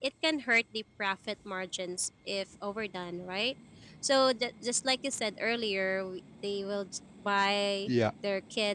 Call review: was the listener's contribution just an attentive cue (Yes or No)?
Yes